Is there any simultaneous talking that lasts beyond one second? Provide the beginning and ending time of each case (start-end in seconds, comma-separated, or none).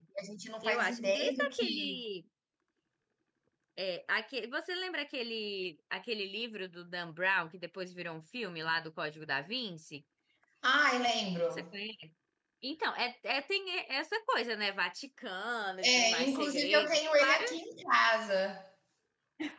0.6-2.0, 15.8-17.4